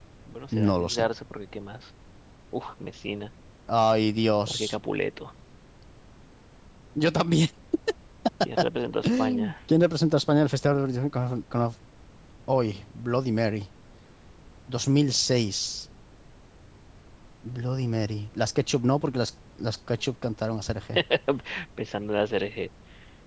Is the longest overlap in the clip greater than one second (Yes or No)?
No